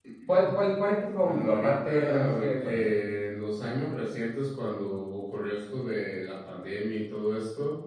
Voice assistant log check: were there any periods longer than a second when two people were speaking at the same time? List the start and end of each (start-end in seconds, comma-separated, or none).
1.2-2.8